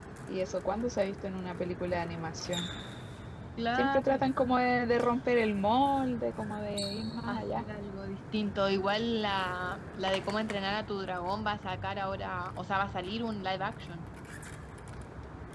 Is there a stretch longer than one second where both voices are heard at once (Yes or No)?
No